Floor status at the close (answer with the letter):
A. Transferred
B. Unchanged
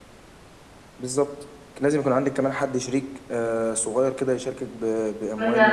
A